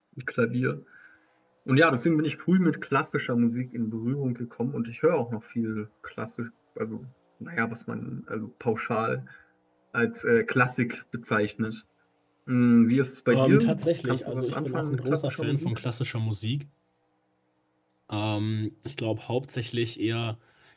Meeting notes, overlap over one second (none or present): present